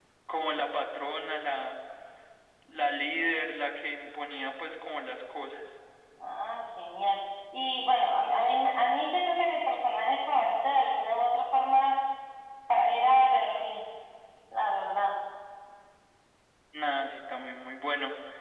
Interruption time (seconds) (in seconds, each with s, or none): none